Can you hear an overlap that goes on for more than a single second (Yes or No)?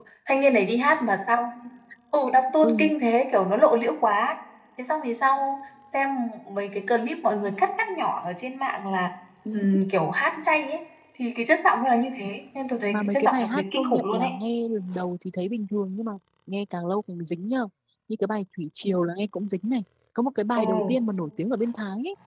Yes